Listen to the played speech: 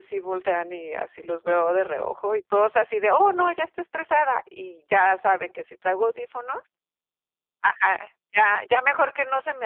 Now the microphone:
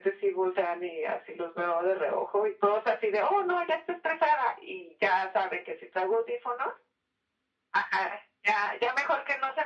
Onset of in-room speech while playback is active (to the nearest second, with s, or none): none